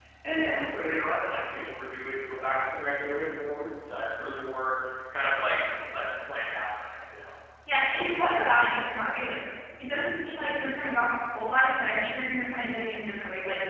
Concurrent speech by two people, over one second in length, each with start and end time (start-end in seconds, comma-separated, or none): none